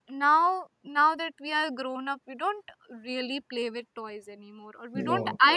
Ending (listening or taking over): listening